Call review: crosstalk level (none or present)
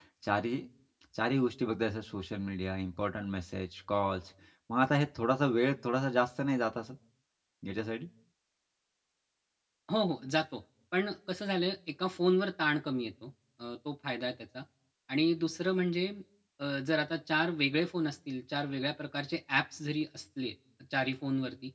none